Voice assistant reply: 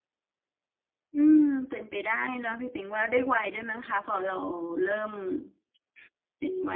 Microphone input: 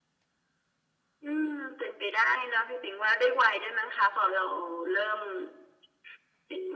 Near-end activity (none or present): none